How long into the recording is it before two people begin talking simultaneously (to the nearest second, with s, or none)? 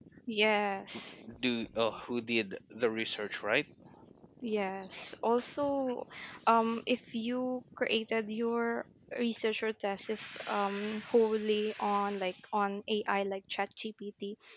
none